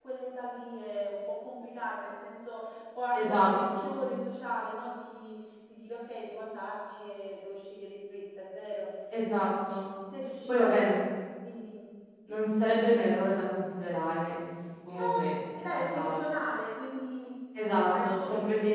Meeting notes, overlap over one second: present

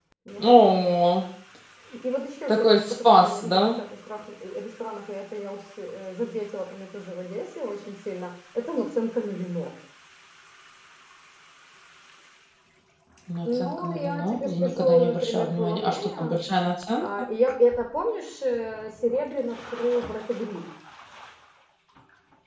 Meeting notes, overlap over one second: present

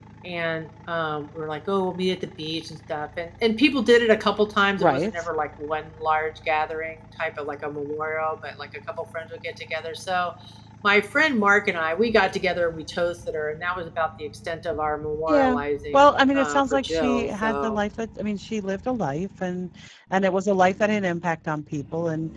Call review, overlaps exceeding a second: present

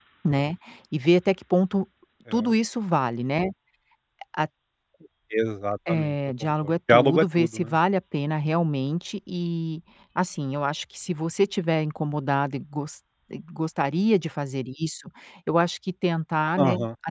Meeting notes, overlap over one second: present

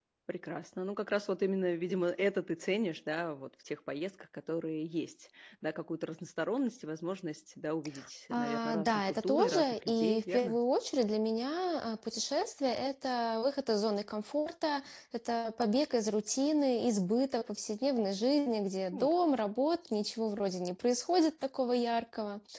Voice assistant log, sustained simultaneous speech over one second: present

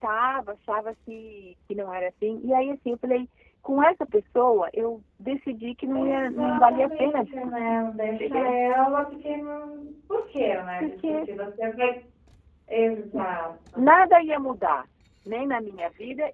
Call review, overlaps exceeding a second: present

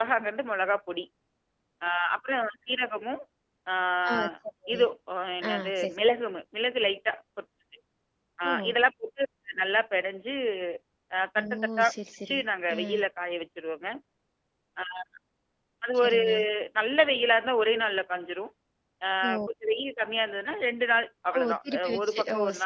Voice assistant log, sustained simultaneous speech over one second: present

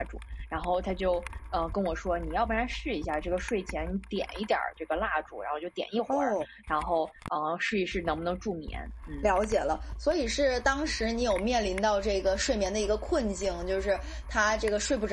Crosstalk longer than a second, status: none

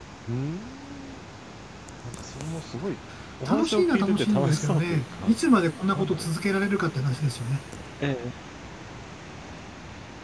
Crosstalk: present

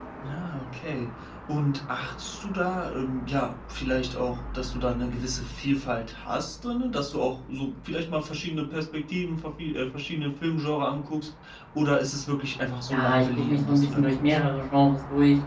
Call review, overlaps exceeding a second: present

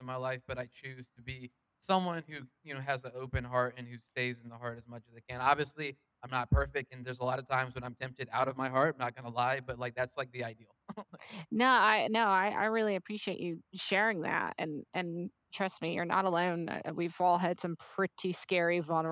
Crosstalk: none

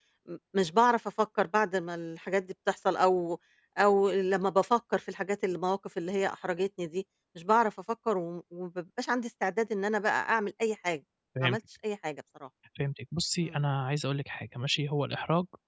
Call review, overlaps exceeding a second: none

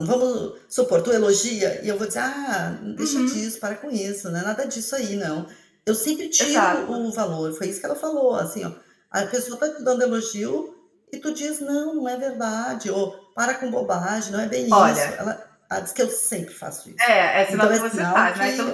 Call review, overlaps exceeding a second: present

